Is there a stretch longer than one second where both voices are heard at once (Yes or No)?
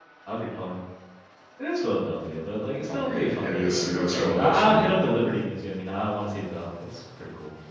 Yes